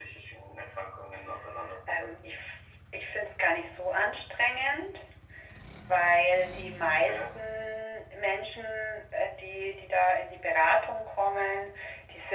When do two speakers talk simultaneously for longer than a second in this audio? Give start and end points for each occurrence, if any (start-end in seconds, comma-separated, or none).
none